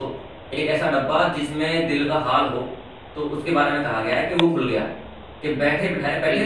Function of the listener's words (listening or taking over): listening